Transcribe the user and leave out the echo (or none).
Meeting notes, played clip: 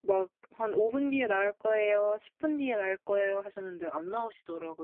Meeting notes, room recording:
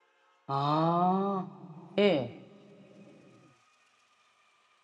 아. 예.